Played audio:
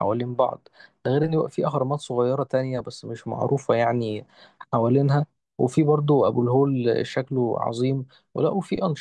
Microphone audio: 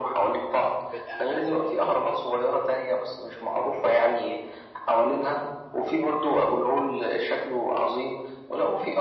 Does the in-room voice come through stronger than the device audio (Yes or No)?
No